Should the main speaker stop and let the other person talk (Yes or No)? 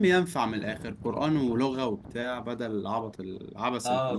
Yes